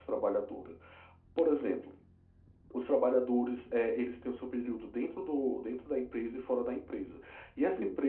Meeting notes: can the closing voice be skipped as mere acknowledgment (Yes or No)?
Yes